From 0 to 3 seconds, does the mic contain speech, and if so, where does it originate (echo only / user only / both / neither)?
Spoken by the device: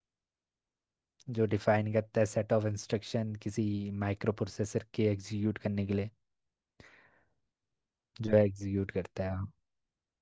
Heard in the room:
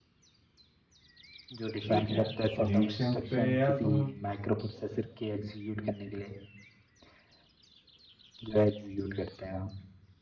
both